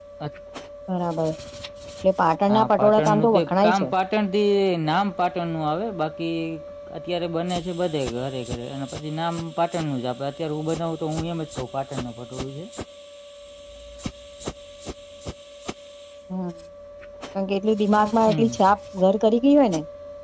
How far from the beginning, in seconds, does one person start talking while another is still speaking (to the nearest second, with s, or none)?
2 s